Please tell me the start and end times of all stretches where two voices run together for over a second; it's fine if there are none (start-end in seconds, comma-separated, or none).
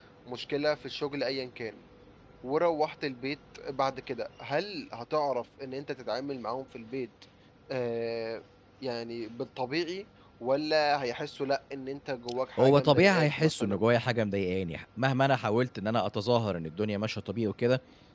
12.6-13.9